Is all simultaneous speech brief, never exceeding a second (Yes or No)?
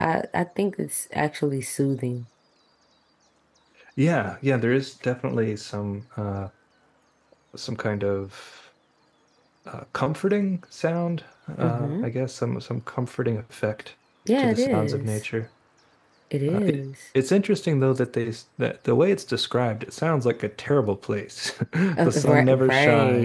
No